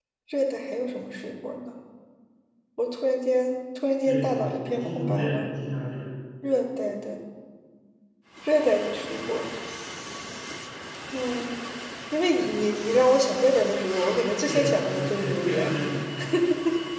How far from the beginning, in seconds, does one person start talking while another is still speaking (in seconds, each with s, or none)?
4.0 s